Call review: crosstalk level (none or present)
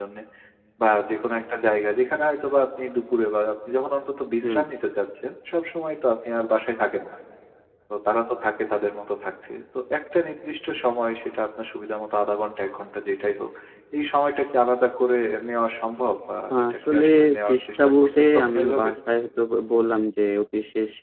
present